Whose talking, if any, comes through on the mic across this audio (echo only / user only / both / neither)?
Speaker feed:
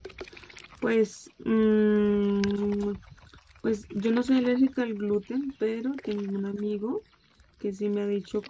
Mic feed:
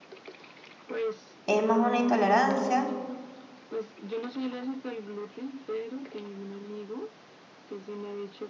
both